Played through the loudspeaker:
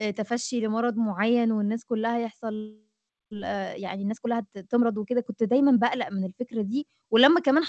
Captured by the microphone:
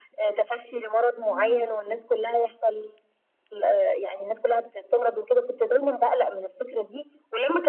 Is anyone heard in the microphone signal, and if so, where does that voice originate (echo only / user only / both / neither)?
both